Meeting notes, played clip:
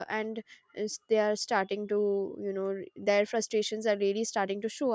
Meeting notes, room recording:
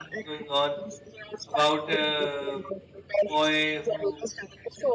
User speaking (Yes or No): Yes